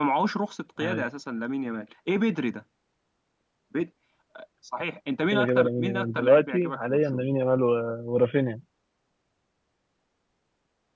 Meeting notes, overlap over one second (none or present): present